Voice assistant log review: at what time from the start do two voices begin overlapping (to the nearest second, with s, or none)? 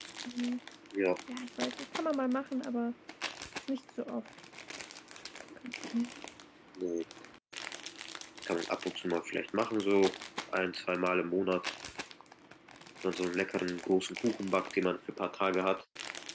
none